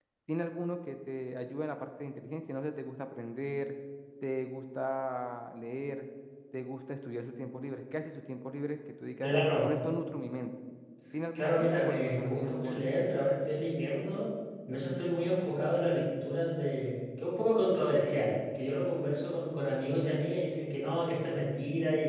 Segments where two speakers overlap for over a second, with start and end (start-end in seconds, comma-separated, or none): 11.3-12.8